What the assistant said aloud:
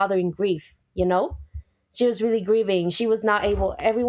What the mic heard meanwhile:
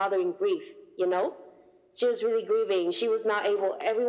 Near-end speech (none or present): none